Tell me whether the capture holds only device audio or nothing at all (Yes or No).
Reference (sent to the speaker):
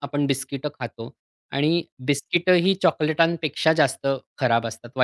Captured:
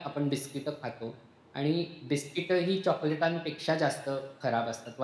Yes